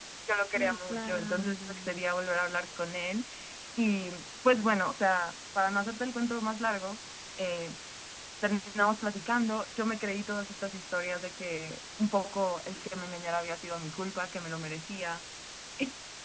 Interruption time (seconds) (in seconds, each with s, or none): 0.5 s